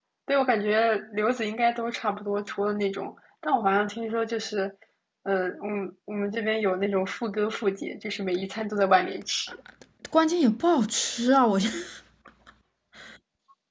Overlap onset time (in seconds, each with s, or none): none